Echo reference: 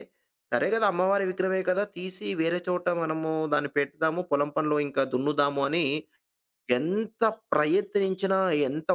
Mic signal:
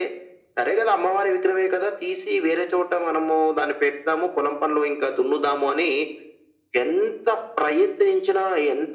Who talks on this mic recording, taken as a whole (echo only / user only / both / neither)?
echo only